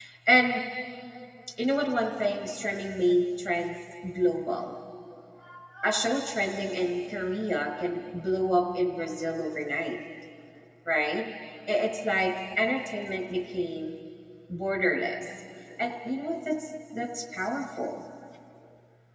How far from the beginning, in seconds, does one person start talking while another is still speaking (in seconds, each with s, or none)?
none